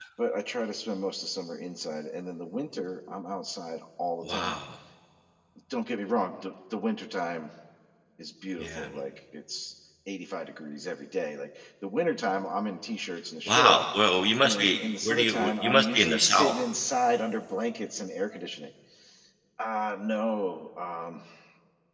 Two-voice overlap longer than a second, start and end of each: 14.4-16.5

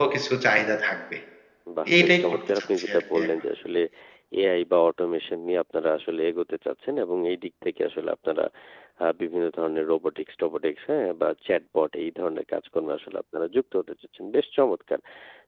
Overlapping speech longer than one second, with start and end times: 2.0-3.3

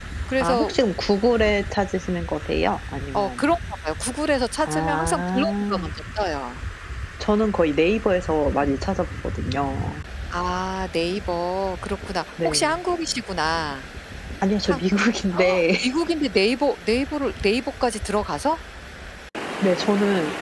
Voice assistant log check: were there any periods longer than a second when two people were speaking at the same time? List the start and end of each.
4.6-5.9

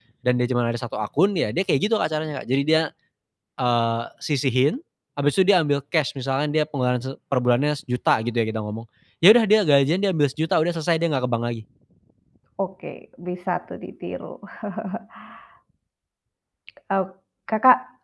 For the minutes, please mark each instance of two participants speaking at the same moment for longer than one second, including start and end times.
none

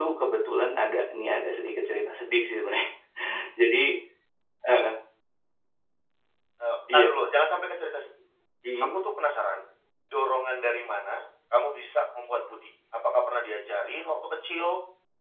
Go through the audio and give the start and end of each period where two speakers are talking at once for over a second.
none

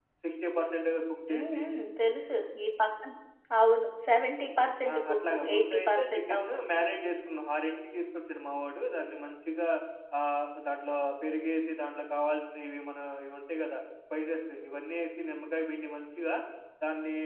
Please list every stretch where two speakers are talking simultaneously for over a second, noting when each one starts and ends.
4.9-7.1

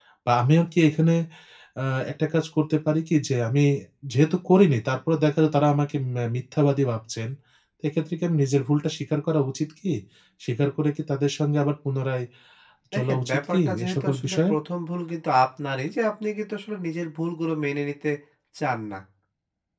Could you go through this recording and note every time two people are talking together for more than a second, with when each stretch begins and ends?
12.9-14.5

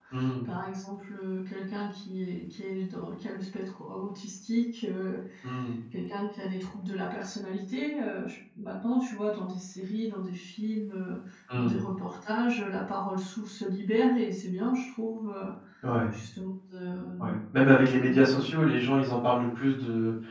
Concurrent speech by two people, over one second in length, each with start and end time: none

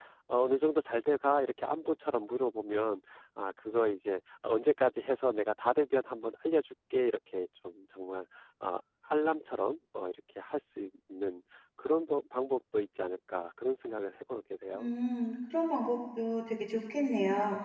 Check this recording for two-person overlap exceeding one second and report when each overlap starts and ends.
none

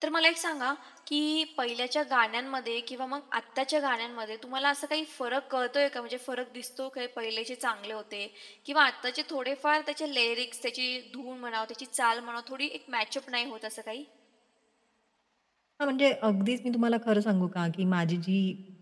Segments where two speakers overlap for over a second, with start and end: none

